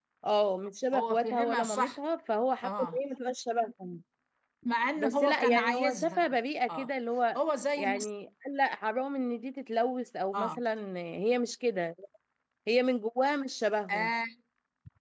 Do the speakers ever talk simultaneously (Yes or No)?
Yes